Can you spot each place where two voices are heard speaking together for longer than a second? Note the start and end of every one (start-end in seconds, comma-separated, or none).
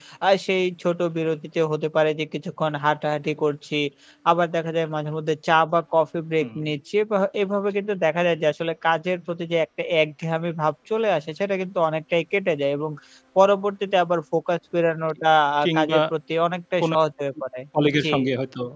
none